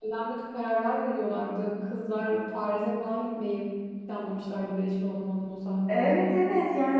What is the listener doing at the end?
taking over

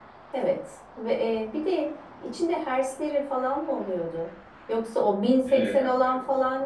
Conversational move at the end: listening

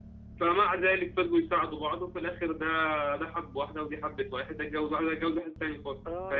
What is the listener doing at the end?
taking over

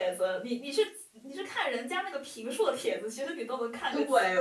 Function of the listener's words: taking over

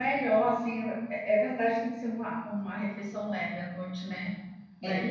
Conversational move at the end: taking over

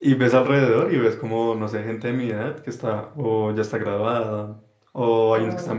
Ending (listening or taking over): listening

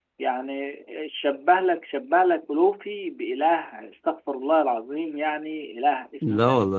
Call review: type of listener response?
listening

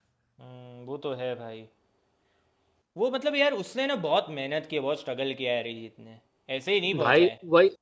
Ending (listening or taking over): taking over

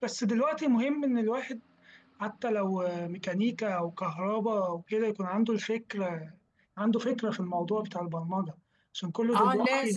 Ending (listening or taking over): taking over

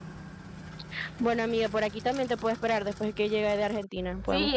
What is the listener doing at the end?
taking over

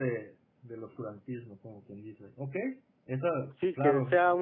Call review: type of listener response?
taking over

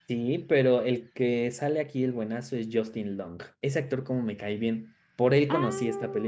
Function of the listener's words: taking over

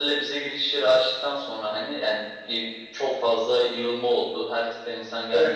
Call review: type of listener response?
listening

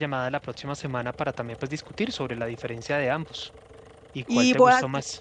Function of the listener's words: taking over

